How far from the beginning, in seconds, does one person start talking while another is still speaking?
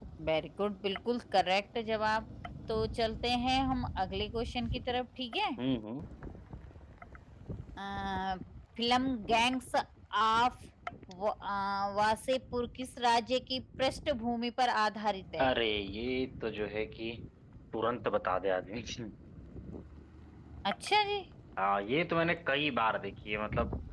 none

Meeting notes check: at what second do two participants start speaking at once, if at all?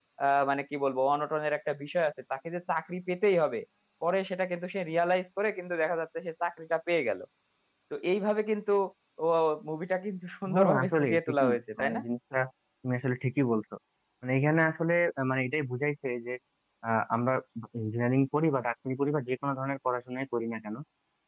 10.5 s

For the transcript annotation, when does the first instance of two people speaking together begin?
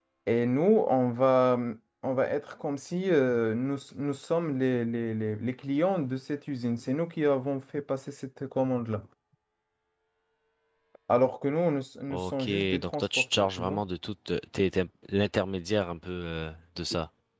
12.1 s

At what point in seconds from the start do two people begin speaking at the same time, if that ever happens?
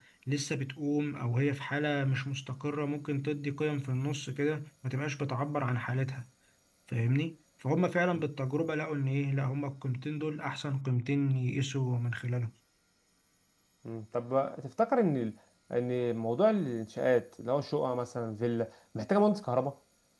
none

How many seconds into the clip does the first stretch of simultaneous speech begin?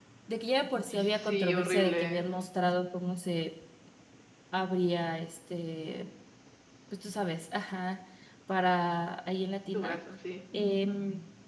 0.9 s

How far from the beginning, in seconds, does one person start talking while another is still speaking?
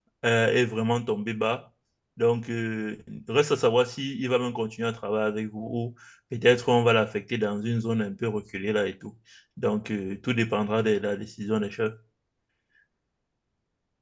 none

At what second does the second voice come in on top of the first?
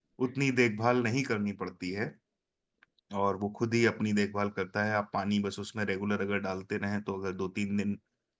none

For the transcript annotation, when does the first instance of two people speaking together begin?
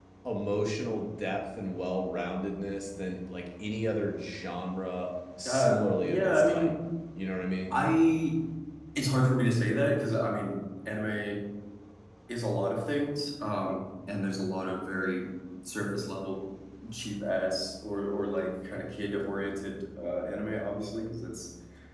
5.4 s

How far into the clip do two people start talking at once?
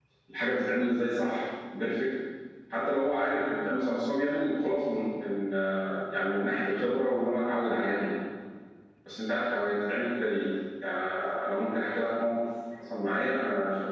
none

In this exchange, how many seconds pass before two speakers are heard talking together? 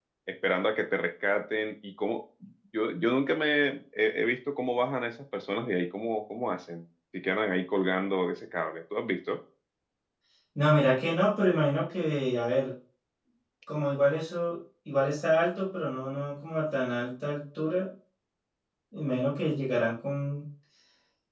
none

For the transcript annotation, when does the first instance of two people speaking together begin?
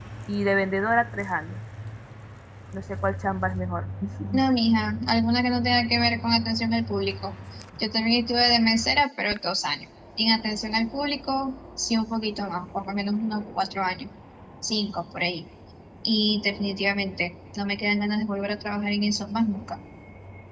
none

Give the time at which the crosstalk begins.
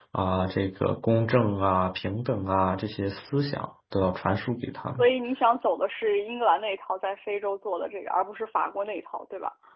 none

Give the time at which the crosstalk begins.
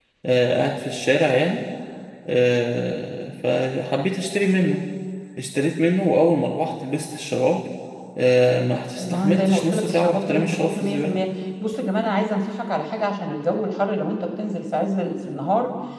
9.0 s

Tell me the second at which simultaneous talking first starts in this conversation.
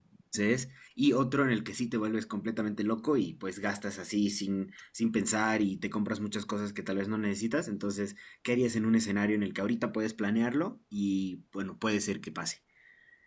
none

